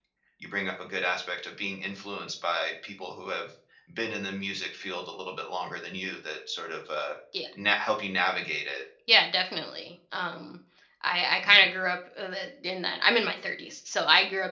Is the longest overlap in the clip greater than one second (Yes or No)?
No